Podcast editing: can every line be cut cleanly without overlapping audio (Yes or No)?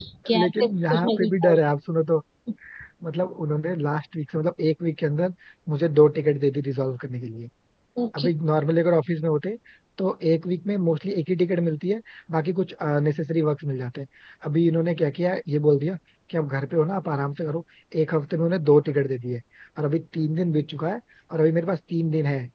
No